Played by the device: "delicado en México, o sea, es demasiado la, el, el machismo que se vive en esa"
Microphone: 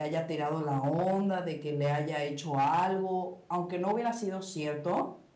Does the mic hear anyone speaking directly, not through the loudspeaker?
Yes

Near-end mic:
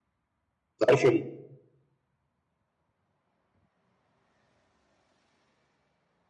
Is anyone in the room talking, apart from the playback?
Yes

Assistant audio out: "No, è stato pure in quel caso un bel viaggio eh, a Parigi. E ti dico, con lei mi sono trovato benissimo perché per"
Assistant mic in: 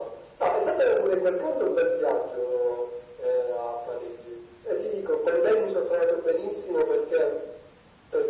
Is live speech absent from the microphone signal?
Yes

